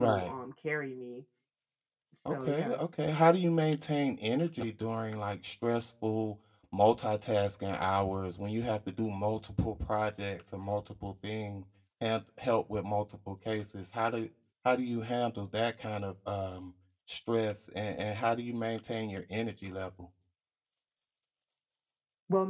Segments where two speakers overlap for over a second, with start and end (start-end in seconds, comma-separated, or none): none